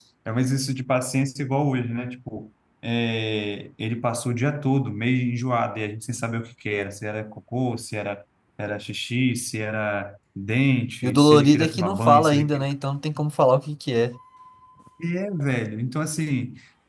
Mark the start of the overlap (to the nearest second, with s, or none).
11 s